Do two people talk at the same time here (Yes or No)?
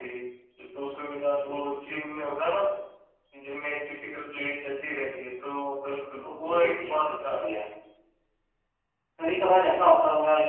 Yes